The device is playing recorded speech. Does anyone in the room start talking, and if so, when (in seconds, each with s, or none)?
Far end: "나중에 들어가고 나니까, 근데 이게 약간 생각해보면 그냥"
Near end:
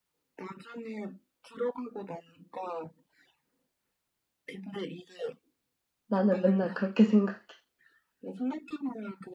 6.1 s